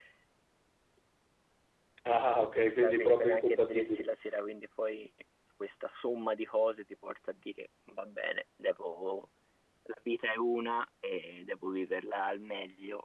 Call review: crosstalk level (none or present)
present